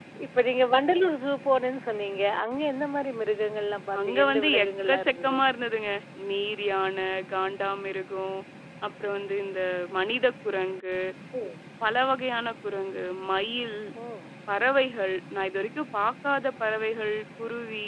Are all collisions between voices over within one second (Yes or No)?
No